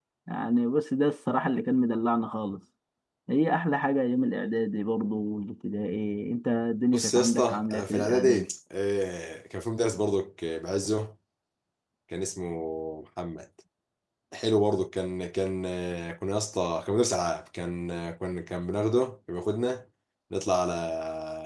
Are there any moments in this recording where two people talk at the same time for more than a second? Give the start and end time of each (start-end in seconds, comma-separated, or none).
6.9-8.5